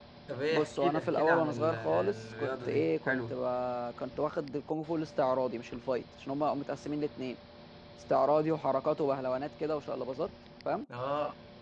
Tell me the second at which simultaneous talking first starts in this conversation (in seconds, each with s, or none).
0.5 s